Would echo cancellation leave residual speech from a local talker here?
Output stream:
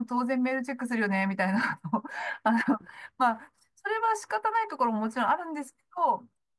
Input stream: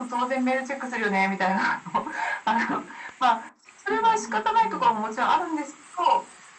Yes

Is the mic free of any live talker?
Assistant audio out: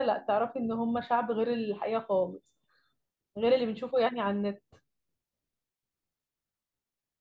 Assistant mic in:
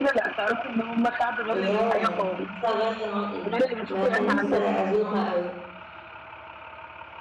No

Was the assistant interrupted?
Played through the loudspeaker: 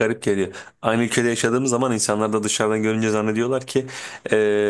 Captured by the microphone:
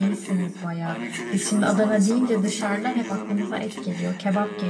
Yes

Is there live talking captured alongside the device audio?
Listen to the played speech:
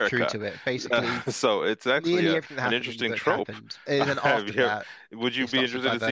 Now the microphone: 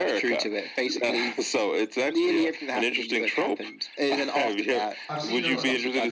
Yes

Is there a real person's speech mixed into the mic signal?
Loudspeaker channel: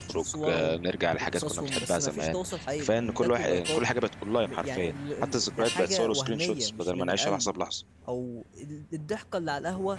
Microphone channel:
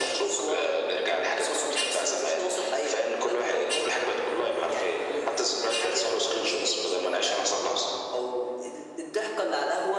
No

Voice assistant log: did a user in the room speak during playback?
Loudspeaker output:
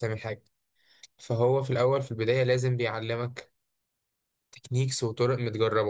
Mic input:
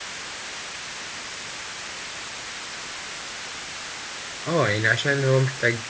Yes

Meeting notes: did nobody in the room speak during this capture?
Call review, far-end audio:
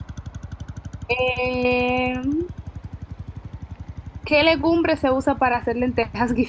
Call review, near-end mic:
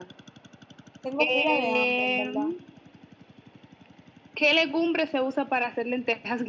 No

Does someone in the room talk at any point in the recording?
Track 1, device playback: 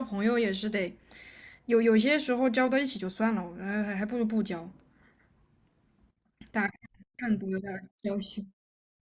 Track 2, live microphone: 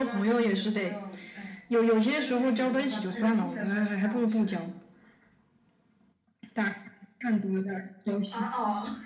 Yes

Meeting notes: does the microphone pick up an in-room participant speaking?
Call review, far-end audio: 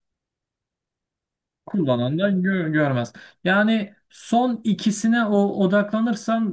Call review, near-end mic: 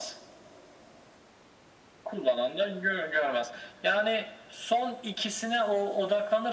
No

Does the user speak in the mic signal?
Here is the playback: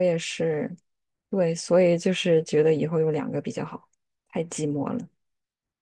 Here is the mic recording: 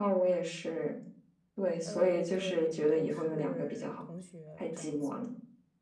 Yes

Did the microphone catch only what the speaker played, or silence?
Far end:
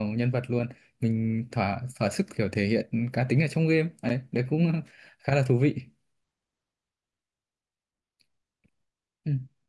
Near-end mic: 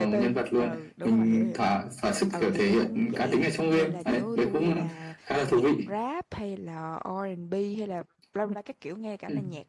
No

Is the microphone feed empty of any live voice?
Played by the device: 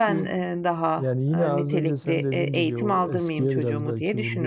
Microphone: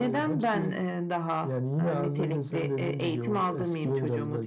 Yes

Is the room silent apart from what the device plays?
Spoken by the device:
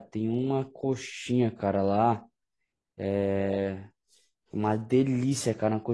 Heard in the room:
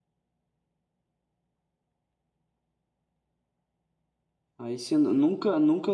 No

